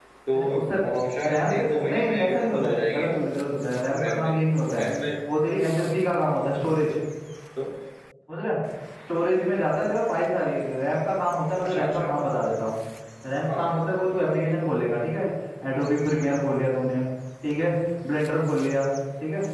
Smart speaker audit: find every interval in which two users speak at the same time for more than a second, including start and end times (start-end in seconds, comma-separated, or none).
1.3-3.2